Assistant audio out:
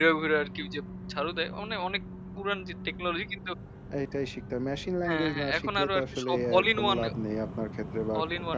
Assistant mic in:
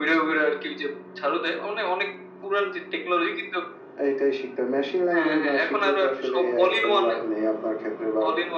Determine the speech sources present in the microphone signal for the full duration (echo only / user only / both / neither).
echo only